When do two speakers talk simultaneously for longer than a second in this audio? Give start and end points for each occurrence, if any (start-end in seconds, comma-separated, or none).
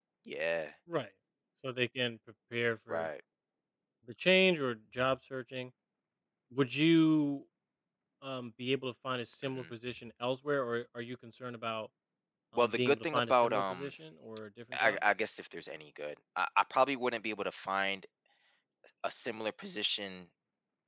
12.6-13.9